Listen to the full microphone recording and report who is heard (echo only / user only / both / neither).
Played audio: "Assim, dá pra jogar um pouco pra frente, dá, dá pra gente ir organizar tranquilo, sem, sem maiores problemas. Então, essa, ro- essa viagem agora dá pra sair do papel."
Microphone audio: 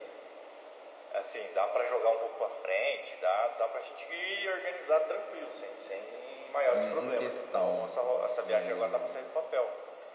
both